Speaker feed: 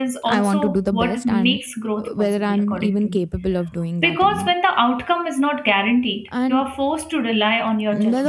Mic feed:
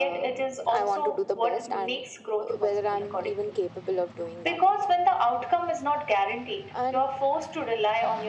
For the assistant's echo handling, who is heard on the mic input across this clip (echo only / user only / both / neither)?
echo only